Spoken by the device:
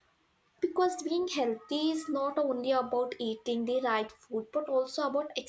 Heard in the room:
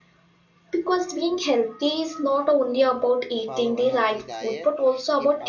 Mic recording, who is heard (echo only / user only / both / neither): both